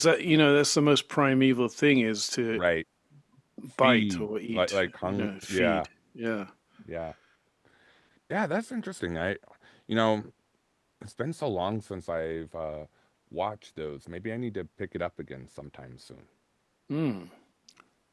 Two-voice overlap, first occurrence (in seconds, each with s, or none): 3.8 s